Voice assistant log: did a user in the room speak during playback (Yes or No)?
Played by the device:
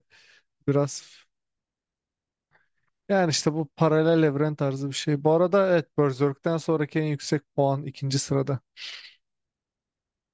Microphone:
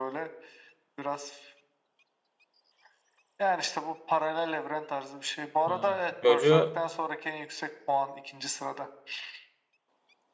Yes